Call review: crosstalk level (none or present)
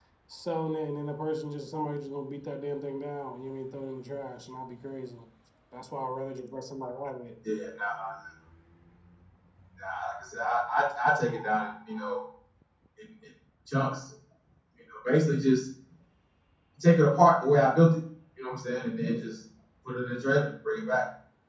none